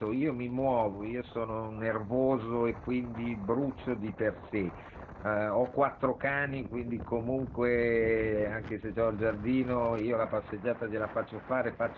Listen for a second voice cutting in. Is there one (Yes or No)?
No